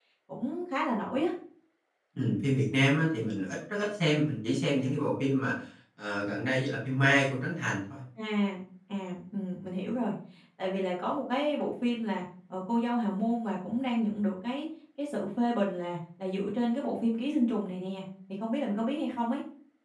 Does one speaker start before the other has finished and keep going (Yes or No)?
No